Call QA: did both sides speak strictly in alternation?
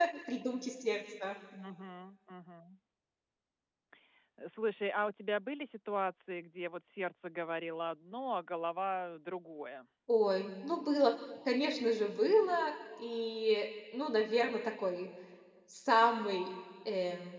Yes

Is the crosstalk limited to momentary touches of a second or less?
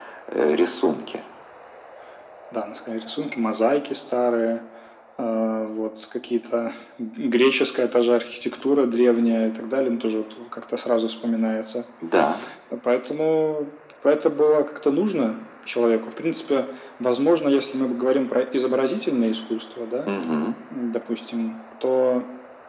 Yes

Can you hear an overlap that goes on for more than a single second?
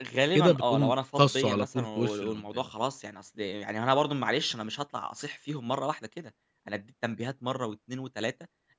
Yes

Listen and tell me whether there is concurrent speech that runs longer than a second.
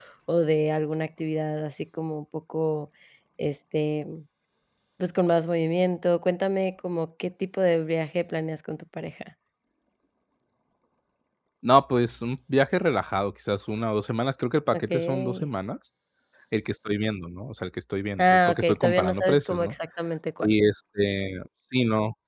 Yes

